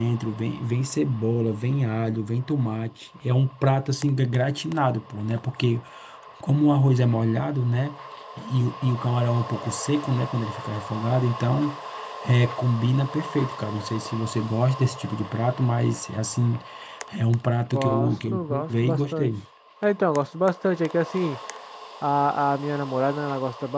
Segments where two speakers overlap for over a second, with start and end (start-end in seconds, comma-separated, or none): 17.7-19.3